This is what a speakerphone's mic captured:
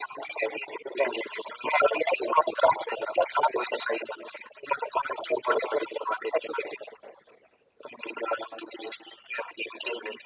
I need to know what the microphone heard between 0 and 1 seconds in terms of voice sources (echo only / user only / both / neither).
echo only